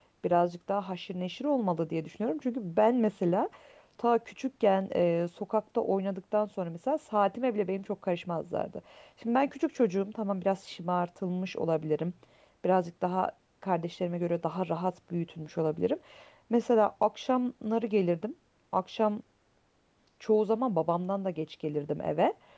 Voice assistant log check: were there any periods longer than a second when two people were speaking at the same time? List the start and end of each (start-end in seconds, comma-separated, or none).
none